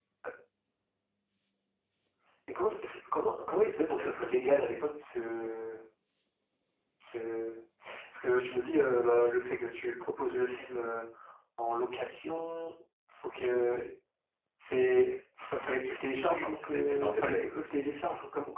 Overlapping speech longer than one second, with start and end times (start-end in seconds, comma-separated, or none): 16.2-17.5